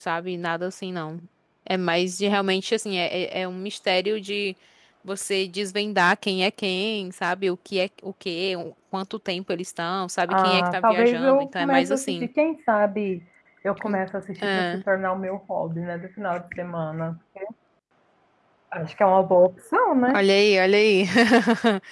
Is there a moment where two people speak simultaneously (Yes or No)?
Yes